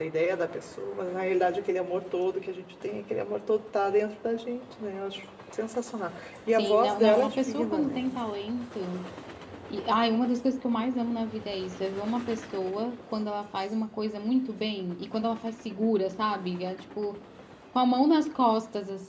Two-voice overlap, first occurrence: 6.5 s

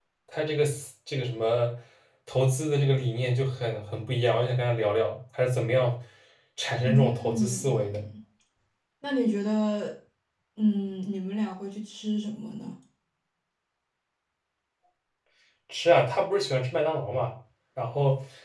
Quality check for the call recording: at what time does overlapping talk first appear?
6.8 s

